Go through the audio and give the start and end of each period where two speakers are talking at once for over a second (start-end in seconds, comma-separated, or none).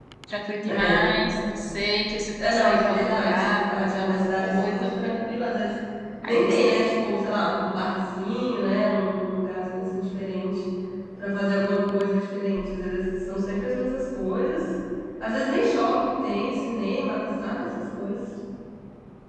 2.4-4.8